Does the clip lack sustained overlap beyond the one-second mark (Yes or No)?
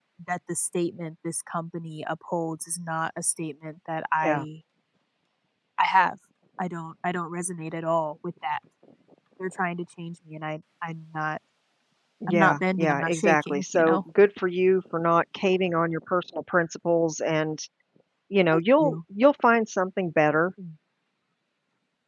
No